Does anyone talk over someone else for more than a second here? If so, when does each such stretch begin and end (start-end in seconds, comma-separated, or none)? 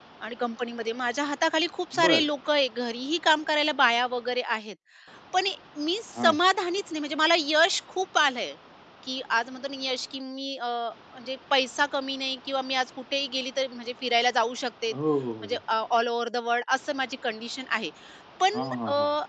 none